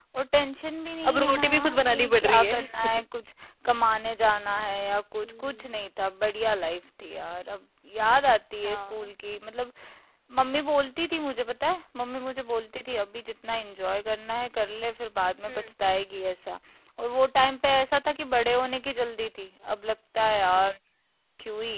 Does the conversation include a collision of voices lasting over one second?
Yes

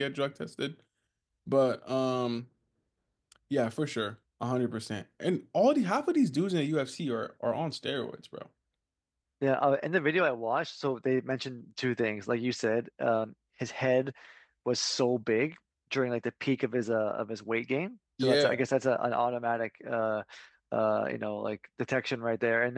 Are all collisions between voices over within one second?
Yes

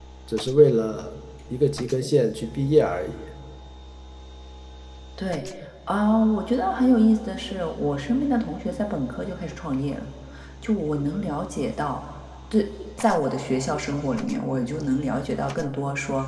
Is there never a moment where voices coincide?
Yes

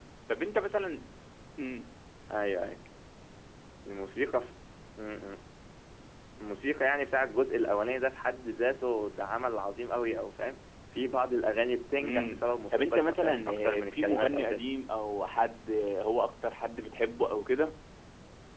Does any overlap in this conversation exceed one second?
Yes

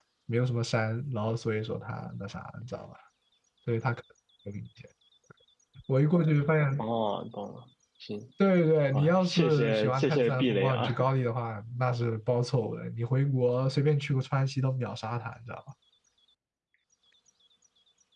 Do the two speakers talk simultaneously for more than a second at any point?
Yes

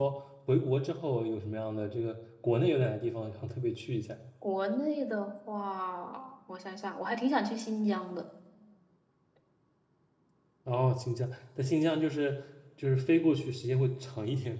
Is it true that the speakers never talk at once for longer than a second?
Yes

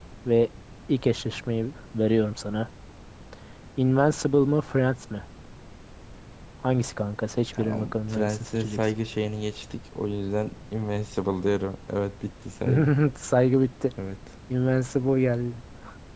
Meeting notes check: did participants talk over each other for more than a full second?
Yes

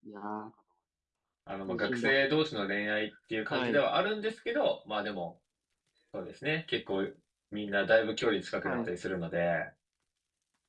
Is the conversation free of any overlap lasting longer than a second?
Yes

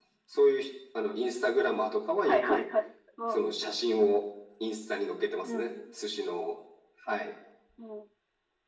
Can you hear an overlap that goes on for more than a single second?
No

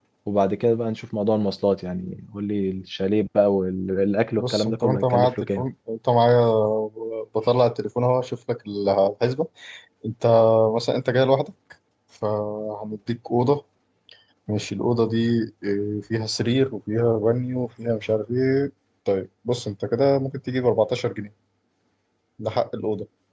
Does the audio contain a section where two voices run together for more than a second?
Yes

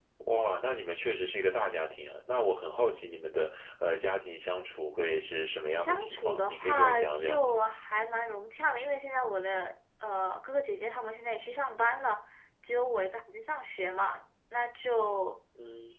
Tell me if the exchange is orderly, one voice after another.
No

